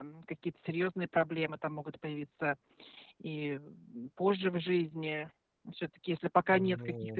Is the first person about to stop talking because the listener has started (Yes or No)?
No